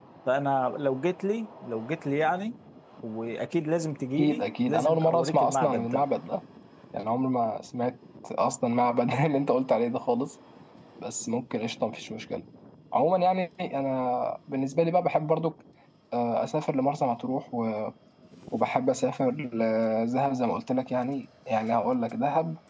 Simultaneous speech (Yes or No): Yes